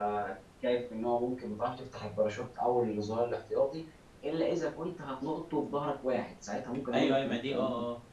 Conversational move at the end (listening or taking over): taking over